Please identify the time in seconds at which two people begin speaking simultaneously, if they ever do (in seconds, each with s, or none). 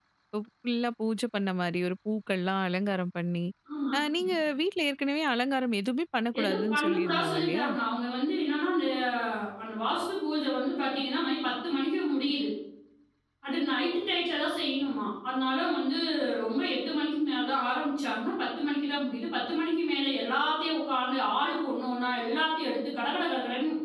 6.3 s